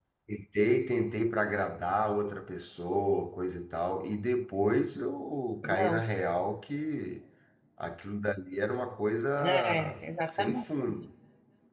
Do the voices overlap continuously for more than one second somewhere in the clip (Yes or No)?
Yes